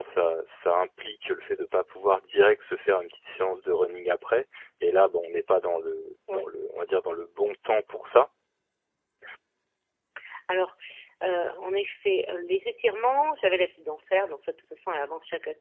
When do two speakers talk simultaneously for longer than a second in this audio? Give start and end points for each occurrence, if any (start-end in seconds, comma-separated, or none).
none